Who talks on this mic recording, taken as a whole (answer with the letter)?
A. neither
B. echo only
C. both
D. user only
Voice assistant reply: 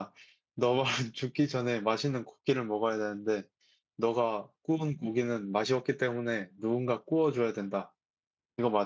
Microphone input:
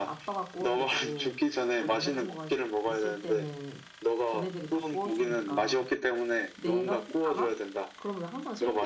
C